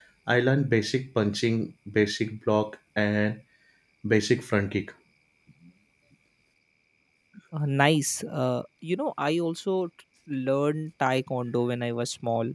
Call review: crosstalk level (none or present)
none